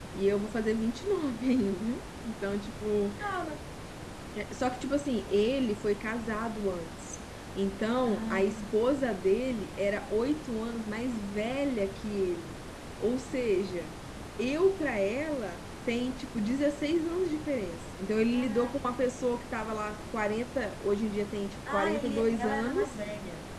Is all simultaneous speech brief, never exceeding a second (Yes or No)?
No